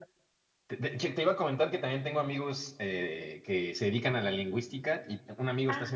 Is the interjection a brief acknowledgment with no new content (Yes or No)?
Yes